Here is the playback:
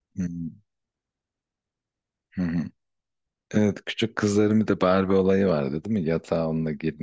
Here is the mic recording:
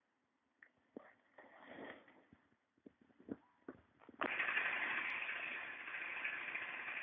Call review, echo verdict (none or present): none